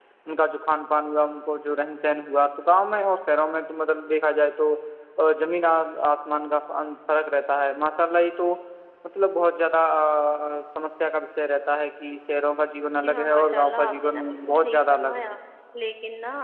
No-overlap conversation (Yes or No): No